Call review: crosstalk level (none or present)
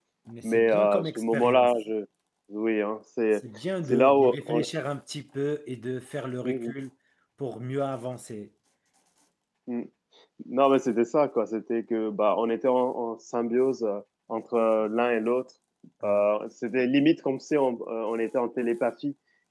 present